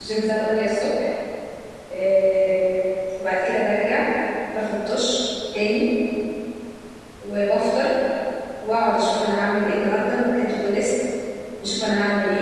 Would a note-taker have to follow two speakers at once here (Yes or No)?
No